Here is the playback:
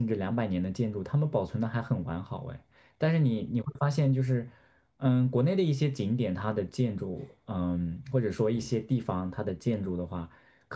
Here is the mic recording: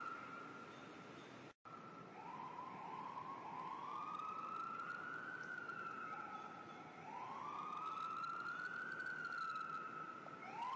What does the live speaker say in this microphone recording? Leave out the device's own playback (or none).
none